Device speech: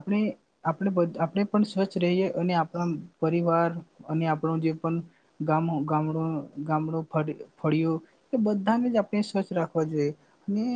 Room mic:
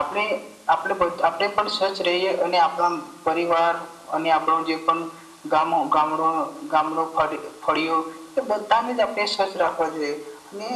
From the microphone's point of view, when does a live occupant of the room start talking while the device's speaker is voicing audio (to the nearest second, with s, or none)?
none